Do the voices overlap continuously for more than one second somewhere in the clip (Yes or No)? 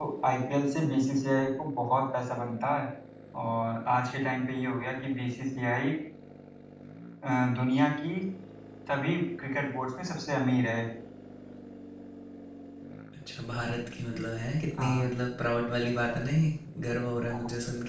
No